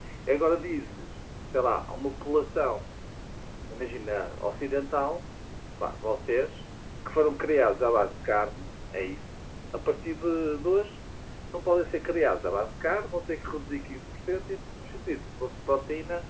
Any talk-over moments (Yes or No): No